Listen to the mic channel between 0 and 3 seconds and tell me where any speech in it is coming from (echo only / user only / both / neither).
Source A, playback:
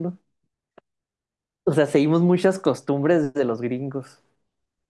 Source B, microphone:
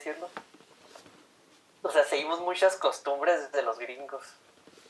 echo only